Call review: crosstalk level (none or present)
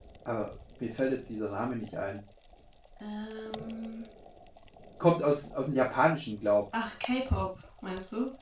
none